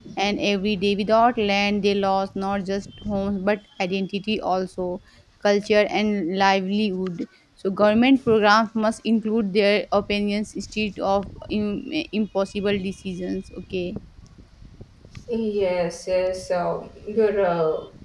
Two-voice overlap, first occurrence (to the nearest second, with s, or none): none